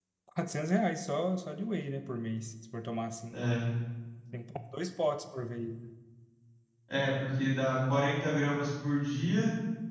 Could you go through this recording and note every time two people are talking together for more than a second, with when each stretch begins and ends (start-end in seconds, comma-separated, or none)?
none